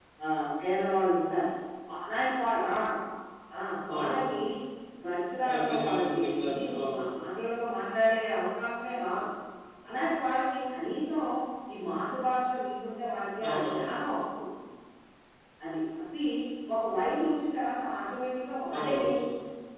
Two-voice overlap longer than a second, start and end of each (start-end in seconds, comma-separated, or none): 5.5-7.1